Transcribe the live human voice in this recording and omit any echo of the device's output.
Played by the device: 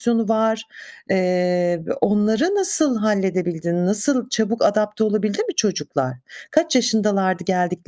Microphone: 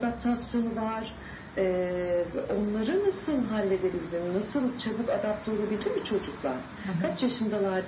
Hı hı.

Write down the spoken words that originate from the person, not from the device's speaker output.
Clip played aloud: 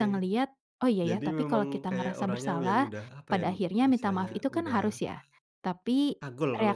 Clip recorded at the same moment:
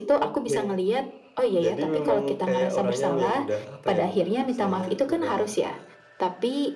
none

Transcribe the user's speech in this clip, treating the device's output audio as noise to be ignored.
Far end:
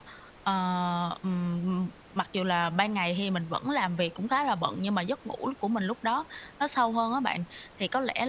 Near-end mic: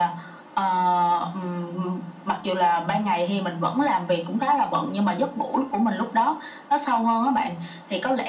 none

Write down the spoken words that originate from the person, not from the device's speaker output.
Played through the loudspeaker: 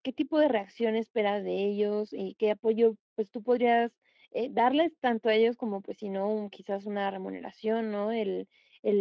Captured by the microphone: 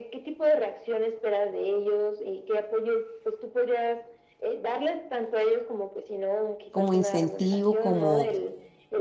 como incentivo, como:

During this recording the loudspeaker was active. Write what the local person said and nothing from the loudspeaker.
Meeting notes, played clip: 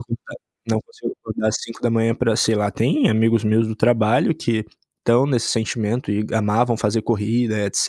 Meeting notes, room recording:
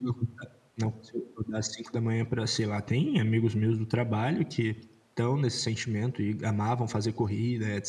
none

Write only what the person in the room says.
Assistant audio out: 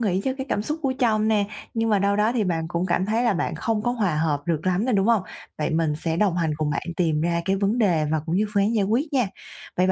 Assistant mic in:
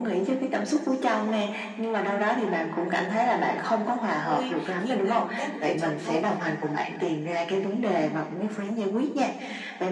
vui khi mà đón Tết ở nhà chồng thôi.

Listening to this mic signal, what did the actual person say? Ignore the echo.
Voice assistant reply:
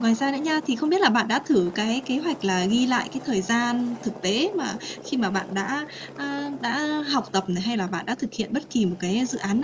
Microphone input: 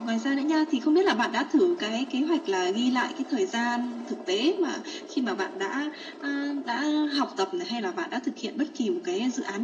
none

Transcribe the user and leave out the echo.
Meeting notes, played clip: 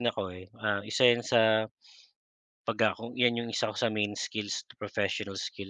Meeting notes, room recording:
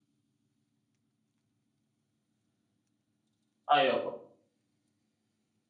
Ay, opo.

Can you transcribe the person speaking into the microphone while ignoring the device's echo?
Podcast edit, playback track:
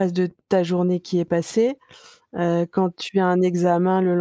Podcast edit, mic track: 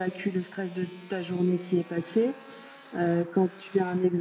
none

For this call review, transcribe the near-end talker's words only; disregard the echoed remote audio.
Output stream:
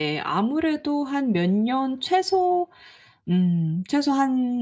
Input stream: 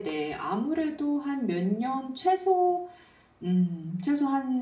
none

